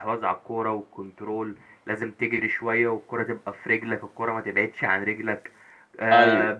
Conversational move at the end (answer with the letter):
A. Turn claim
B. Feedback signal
B